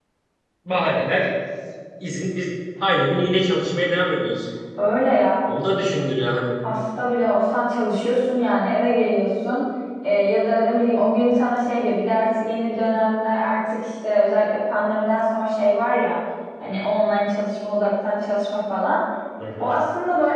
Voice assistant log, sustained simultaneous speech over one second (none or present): none